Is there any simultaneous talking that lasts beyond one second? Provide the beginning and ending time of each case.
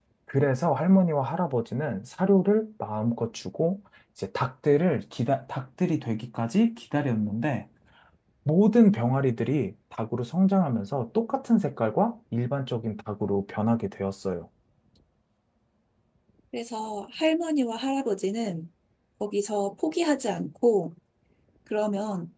none

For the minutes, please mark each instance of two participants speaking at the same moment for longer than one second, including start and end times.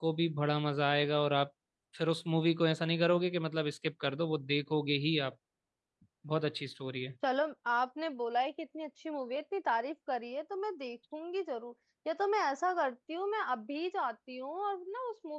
none

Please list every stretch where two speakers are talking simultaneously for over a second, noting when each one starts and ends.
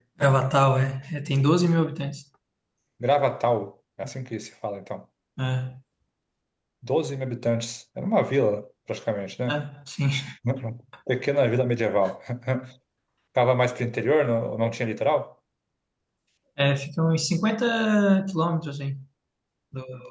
none

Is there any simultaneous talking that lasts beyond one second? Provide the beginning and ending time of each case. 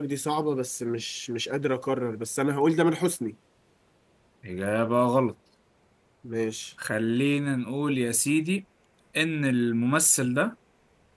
none

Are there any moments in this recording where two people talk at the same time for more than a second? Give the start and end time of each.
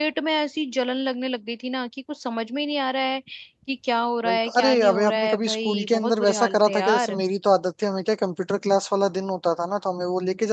4.2-7.2

